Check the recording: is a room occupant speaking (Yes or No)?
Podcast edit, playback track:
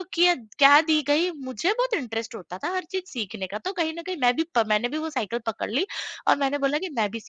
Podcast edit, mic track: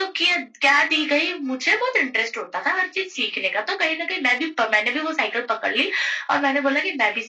No